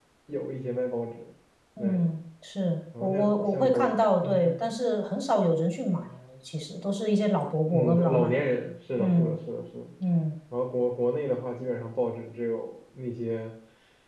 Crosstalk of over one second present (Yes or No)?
Yes